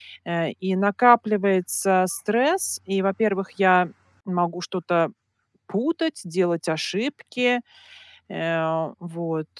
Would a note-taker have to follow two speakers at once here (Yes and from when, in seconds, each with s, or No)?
No